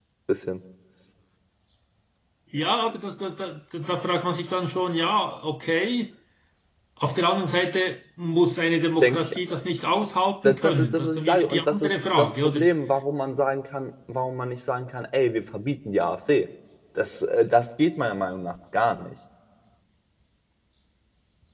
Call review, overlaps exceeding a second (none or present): present